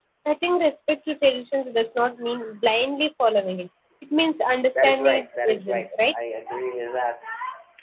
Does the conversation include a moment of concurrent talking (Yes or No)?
Yes